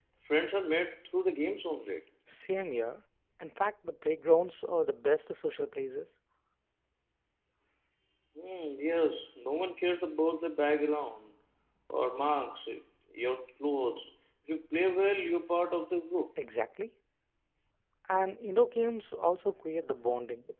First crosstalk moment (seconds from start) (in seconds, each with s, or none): none